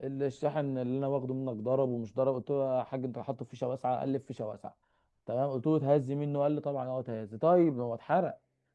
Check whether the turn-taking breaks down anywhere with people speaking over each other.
No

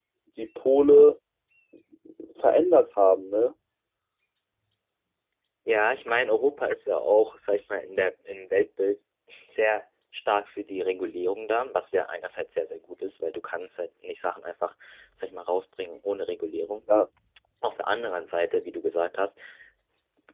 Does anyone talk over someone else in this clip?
No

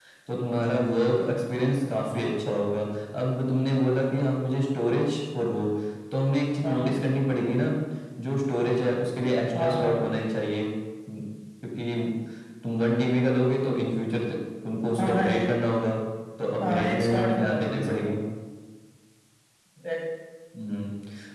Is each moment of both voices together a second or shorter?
No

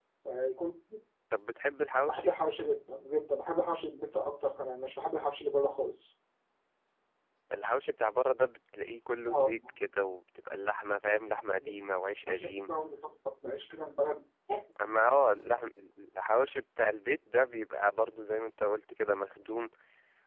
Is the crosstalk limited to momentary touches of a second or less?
Yes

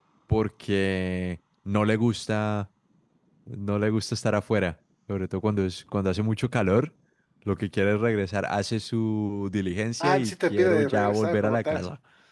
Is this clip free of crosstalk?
No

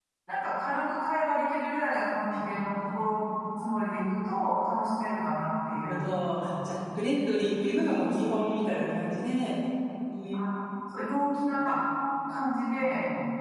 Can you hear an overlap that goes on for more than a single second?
No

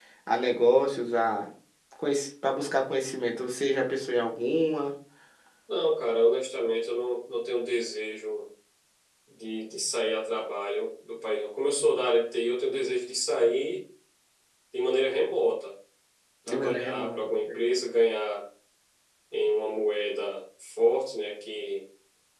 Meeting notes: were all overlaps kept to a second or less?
No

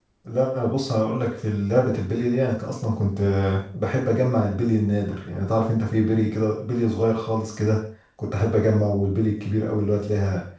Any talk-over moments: No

